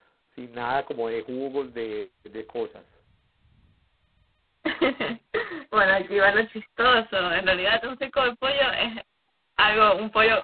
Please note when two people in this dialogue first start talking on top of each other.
none

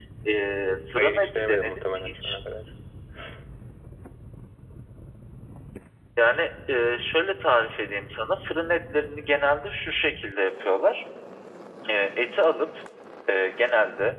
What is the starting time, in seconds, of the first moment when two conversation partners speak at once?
1.0 s

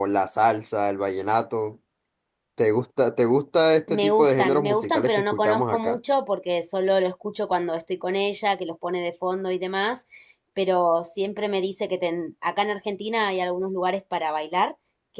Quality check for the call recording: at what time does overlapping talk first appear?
3.9 s

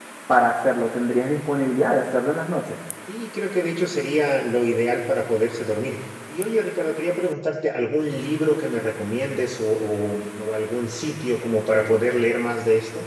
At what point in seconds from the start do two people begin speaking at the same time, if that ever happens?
none

